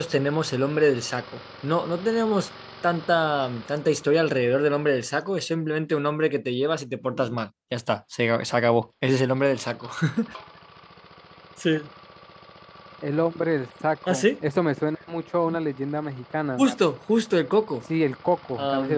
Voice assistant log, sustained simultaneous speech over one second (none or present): none